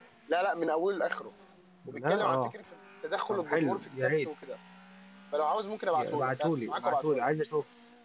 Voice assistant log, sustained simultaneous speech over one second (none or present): present